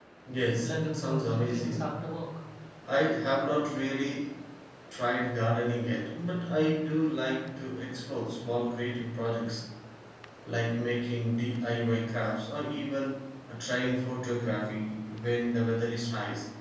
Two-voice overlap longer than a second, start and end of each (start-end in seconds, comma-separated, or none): 0.6-1.9